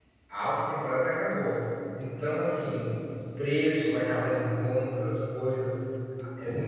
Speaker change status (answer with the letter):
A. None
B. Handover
A